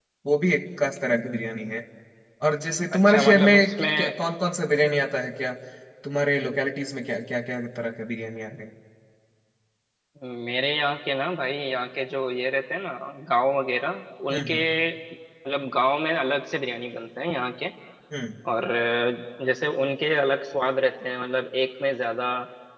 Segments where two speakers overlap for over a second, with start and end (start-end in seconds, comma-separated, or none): 2.9-4.1